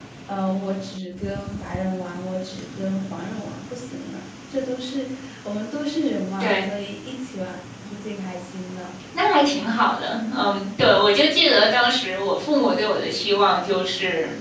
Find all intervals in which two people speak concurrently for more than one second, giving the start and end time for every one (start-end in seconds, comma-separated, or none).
none